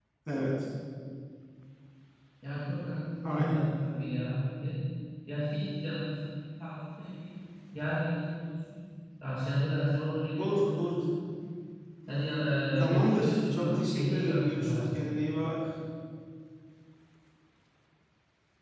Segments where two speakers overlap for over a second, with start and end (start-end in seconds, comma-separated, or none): 12.8-14.9